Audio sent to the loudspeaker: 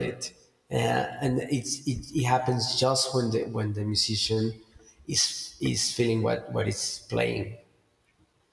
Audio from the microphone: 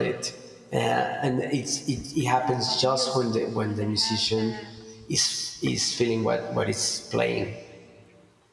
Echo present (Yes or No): Yes